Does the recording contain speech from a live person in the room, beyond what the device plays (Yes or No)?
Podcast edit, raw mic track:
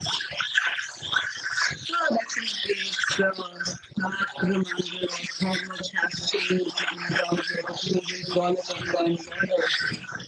No